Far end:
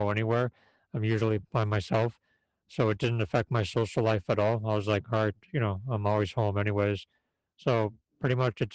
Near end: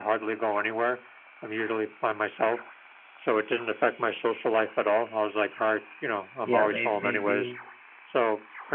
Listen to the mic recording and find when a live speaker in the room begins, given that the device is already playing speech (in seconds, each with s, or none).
6.5 s